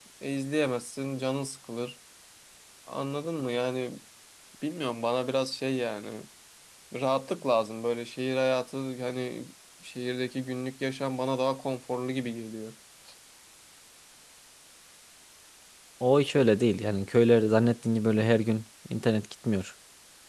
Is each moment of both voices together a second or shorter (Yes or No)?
Yes